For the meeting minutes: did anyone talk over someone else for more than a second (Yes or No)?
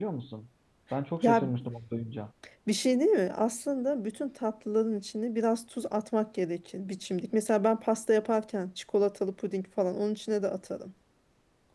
No